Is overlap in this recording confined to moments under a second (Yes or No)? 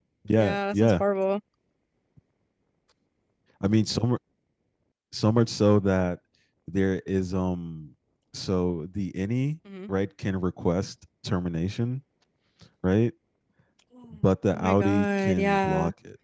No